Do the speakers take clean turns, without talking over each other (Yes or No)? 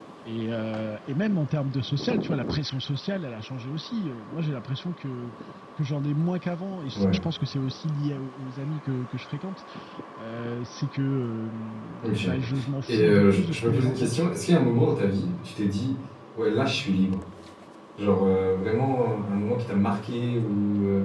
No